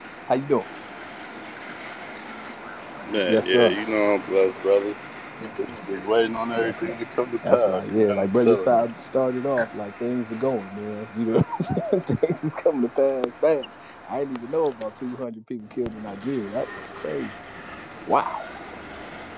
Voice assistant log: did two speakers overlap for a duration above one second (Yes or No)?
Yes